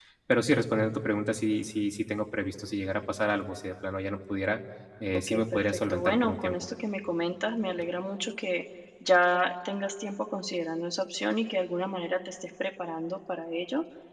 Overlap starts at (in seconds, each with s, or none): 5.3 s